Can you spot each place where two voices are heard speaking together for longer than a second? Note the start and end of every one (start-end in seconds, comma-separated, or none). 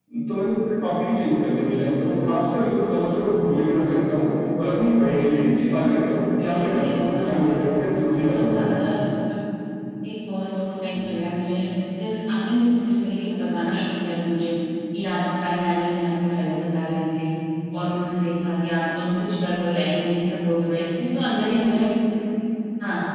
6.4-7.6